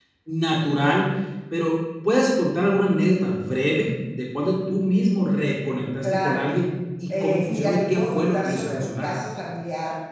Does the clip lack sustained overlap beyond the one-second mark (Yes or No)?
No